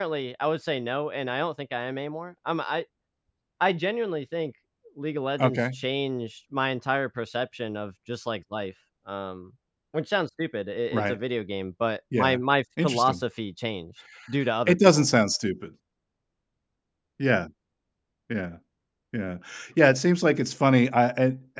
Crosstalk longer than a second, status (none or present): none